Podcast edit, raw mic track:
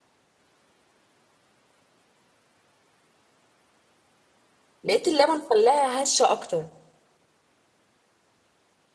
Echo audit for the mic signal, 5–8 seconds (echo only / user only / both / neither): user only